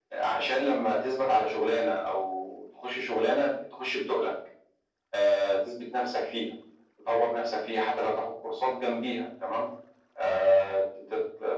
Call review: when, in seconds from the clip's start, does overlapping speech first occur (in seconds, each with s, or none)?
none